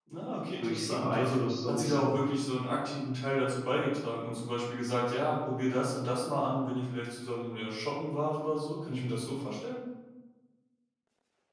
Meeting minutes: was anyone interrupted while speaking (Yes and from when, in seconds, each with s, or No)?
Yes, from 0.6 s